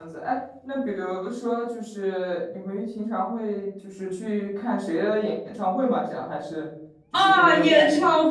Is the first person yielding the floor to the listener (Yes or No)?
Yes